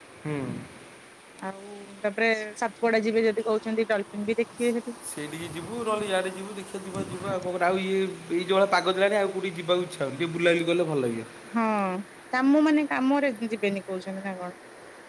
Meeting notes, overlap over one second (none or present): none